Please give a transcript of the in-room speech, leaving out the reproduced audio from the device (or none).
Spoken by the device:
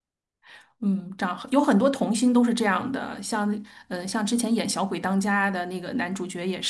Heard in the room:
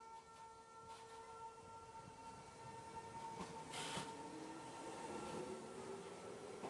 none